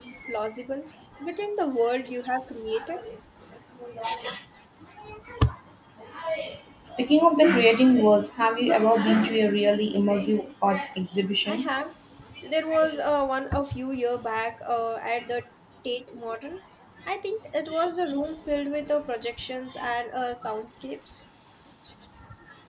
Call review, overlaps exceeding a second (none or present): none